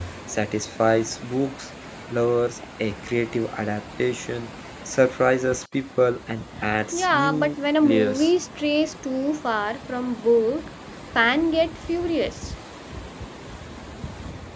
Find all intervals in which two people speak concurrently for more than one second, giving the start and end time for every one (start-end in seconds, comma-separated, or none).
6.9-8.3